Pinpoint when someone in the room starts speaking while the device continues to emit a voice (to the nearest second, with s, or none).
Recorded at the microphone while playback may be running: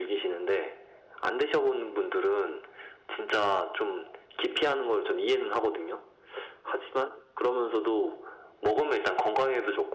none